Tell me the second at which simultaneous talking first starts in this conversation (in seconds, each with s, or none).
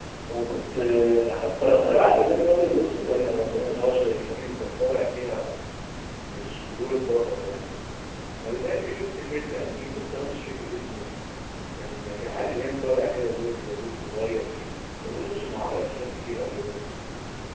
1.7 s